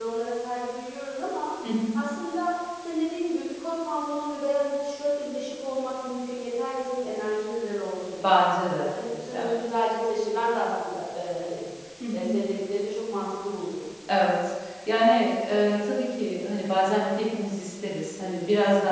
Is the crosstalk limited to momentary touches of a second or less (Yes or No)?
Yes